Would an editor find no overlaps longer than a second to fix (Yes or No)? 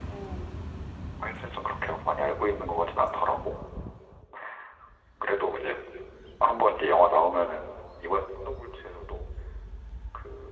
No